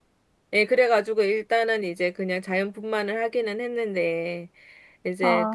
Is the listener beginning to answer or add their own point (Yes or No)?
No